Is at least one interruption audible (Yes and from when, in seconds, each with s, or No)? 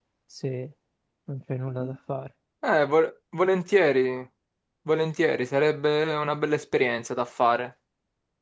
No